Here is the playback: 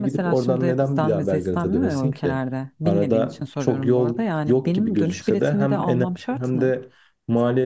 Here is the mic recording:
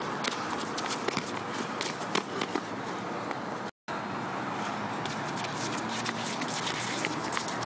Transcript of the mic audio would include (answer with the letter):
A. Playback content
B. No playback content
B